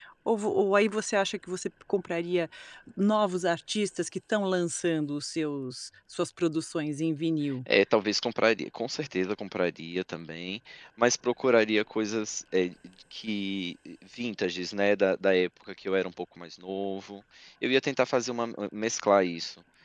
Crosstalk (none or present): none